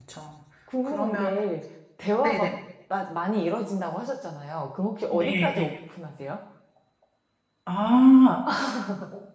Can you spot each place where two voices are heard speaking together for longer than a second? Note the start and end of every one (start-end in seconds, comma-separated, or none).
none